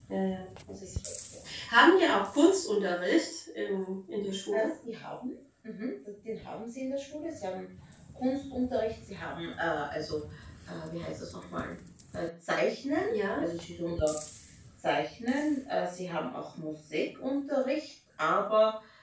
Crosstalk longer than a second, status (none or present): none